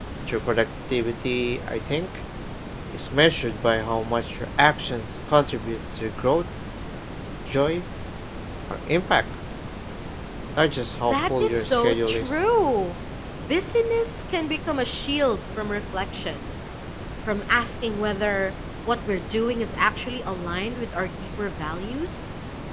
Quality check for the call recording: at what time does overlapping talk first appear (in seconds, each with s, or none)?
11.1 s